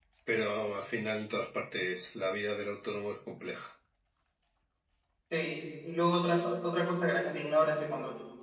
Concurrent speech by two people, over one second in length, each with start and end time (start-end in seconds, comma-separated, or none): none